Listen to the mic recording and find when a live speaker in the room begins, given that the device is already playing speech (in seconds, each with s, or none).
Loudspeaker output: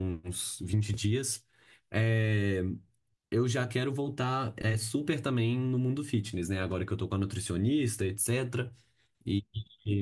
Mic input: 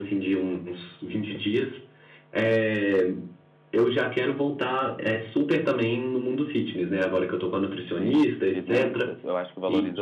7.9 s